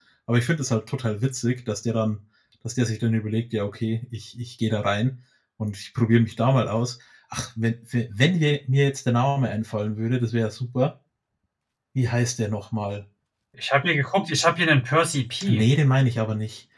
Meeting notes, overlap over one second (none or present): none